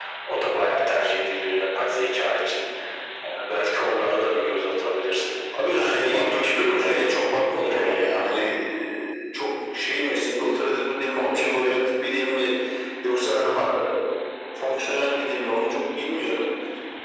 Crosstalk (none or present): present